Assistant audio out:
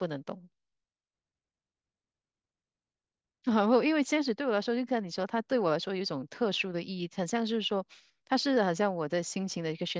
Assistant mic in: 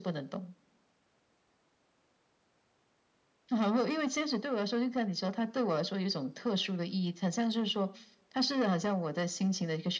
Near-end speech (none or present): none